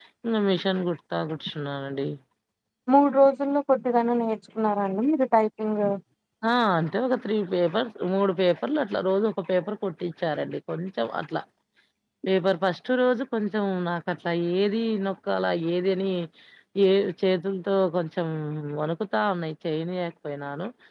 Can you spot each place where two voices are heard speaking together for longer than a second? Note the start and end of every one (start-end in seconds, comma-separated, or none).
none